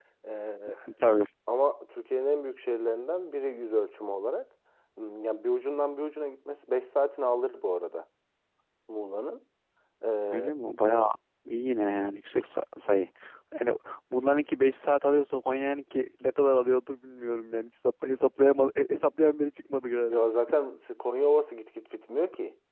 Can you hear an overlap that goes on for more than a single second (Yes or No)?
No